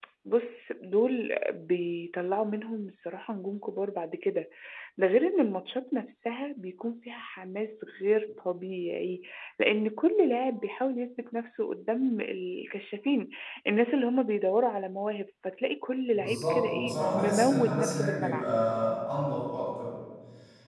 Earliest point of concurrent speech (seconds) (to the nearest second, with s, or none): 16 s